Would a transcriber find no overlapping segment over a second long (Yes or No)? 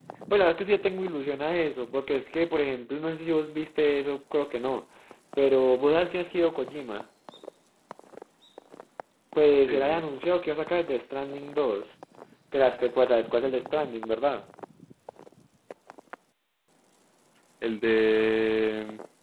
Yes